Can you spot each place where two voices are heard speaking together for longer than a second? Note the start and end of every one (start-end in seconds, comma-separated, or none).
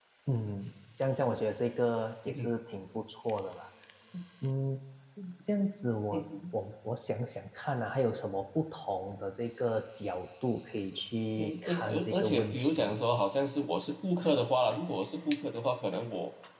11.4-13.0